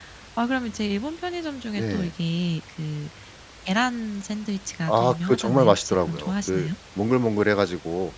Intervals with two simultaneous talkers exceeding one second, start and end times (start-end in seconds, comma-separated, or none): 4.9-6.7